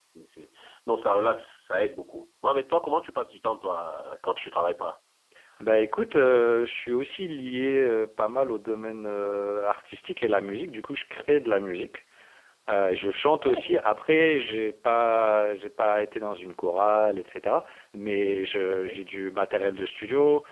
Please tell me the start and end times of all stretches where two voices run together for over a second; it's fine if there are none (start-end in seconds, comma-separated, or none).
none